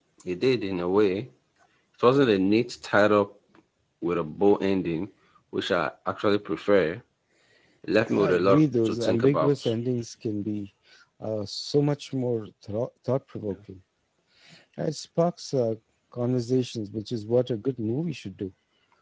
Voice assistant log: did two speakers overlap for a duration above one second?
Yes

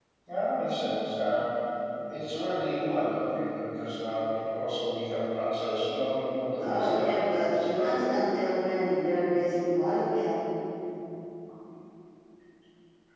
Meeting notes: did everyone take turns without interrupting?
No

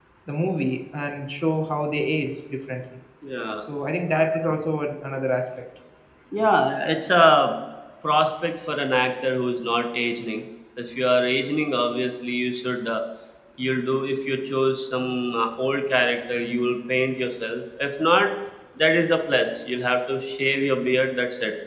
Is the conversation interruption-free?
Yes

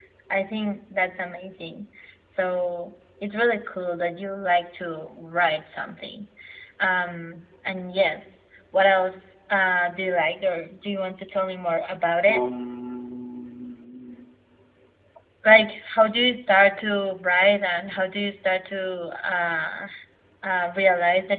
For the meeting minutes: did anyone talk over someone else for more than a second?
No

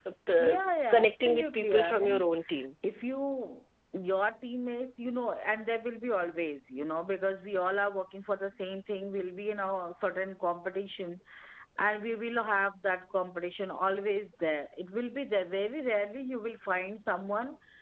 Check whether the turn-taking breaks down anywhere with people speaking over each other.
Yes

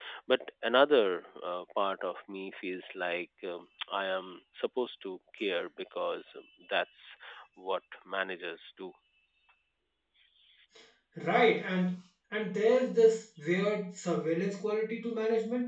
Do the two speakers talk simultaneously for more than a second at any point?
No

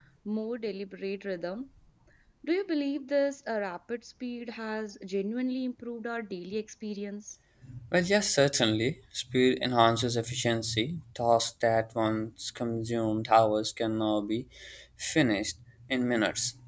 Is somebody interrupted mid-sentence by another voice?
No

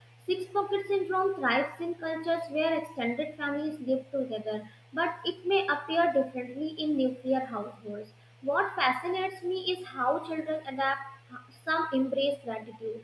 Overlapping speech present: No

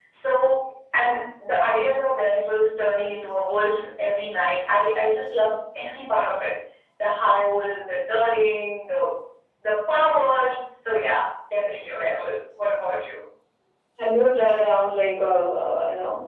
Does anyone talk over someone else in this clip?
No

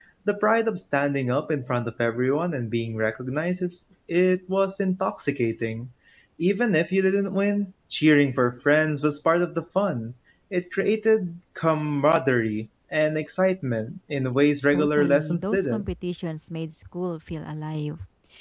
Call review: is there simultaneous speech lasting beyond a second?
Yes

